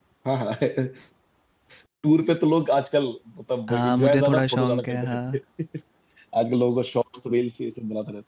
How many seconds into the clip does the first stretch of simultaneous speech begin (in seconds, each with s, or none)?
3.7 s